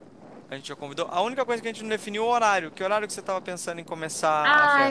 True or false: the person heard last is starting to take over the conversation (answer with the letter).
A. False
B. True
B